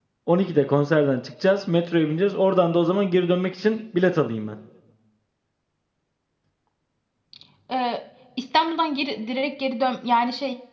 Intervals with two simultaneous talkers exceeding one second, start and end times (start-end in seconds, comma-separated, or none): none